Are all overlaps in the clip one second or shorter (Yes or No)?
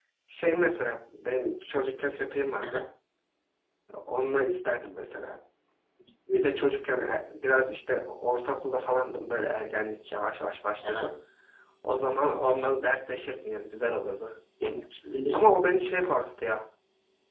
Yes